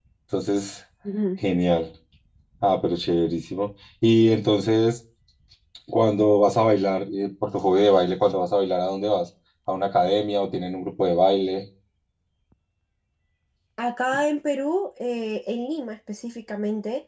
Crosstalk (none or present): none